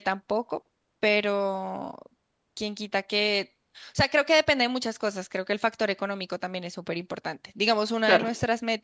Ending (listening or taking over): listening